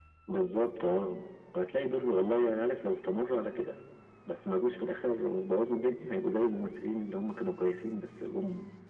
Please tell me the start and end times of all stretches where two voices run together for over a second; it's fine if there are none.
none

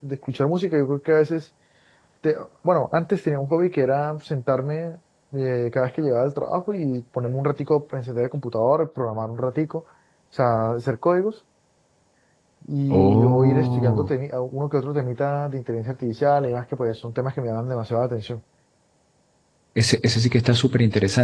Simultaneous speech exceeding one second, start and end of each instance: 12.9-14.1

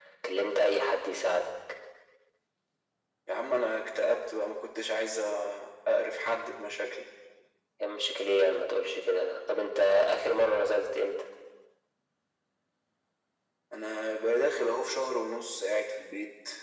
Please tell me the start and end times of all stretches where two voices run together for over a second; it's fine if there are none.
none

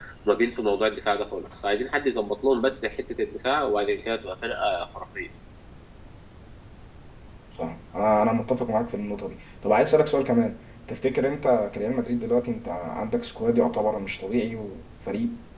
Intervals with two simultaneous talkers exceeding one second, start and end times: none

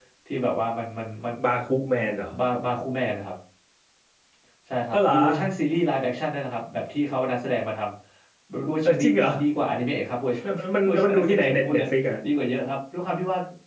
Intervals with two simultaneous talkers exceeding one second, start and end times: 10.4-11.8

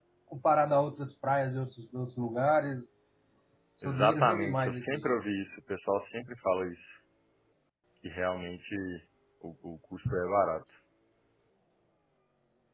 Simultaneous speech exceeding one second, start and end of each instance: 3.8-5.1

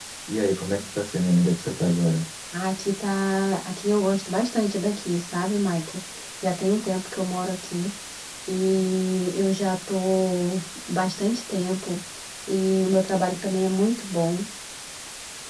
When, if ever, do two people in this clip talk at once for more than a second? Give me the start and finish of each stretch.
none

